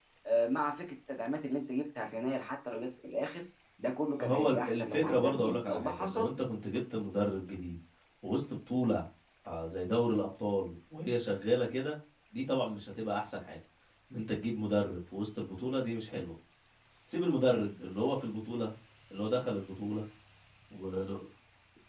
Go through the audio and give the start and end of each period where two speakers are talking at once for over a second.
4.2-6.3

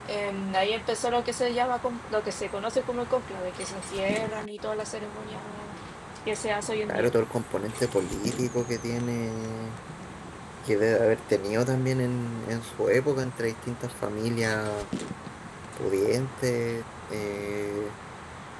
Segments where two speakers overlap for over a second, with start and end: none

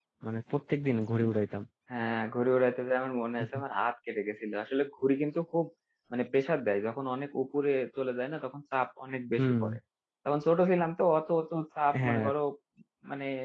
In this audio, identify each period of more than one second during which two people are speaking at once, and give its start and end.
none

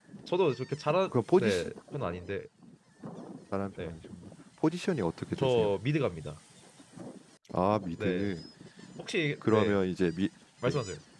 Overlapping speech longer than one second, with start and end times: none

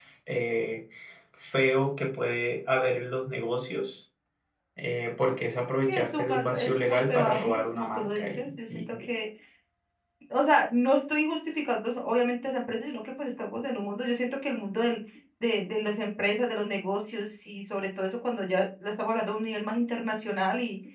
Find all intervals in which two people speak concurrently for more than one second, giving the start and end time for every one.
5.9-8.8

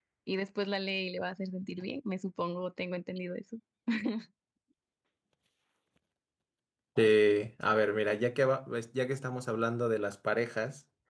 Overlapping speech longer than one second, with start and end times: none

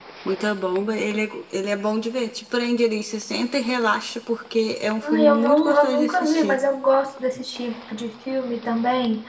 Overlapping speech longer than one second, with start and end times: 5.0-6.6

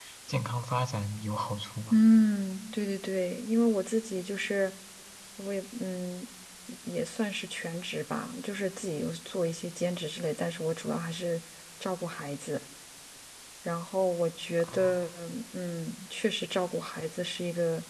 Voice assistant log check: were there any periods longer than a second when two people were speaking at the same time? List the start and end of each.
none

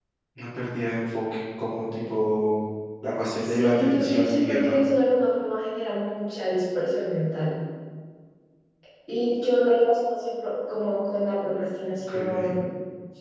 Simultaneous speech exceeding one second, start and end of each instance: 3.4-4.8

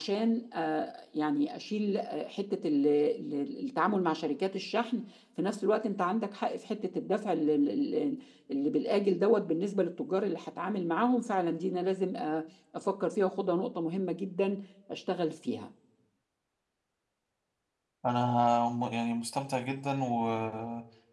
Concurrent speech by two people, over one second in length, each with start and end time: none

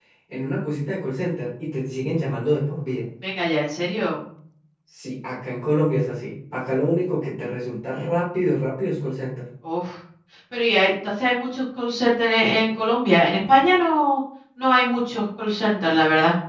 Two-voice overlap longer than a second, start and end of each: none

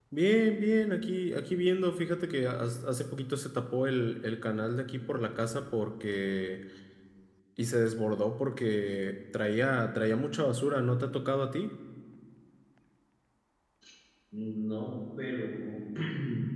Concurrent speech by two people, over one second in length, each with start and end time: none

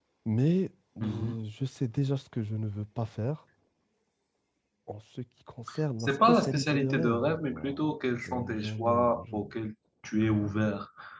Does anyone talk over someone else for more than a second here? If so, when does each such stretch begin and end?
6.0-9.5

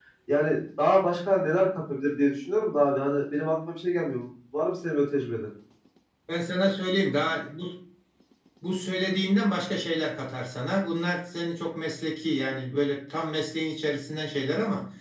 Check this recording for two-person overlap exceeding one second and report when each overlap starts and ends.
none

